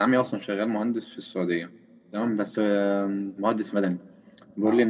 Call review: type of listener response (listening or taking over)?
listening